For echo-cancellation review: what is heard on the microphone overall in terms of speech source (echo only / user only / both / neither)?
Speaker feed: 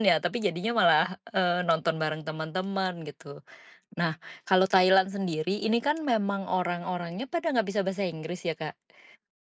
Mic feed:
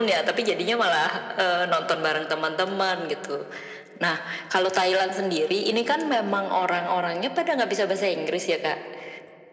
echo only